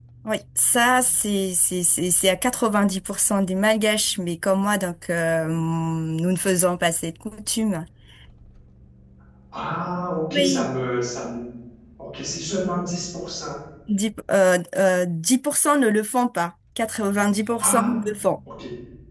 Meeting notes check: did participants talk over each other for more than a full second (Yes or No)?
No